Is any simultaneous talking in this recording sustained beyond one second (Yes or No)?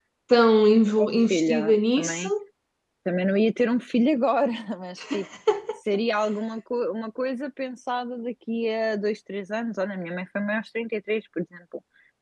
Yes